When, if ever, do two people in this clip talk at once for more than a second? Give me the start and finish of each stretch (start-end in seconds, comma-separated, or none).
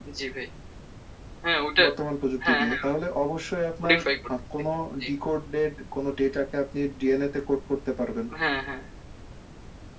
none